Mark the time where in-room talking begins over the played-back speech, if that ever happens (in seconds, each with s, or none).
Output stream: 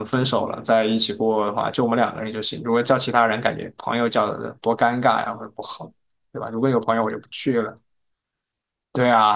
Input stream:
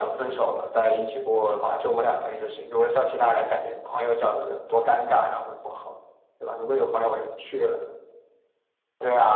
none